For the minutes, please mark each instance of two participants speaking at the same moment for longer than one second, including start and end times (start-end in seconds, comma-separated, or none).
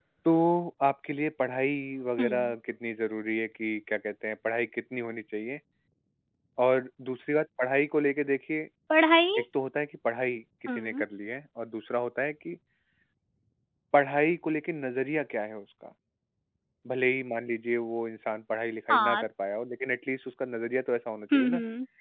none